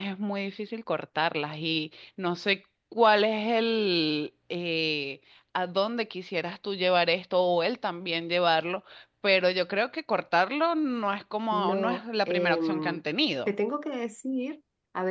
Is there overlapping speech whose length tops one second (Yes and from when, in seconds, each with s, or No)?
Yes, from 11.5 s